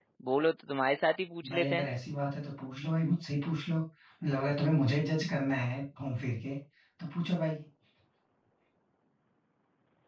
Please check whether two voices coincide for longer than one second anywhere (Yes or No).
No